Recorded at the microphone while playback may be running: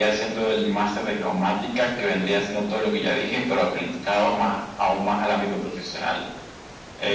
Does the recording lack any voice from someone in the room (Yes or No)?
Yes